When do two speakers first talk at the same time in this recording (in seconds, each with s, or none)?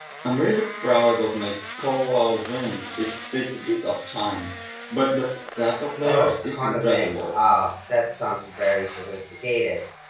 6.0 s